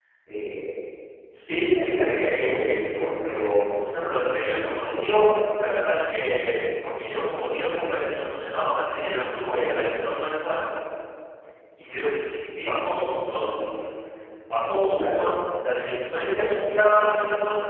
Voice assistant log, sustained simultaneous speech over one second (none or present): present